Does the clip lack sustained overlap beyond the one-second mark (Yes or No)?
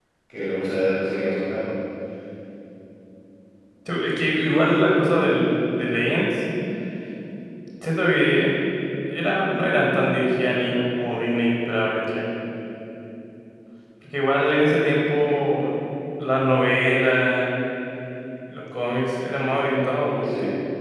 Yes